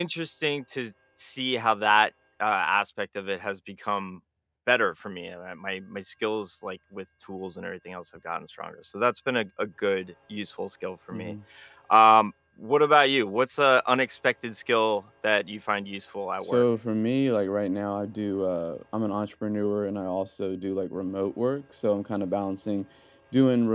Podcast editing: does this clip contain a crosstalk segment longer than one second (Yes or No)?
No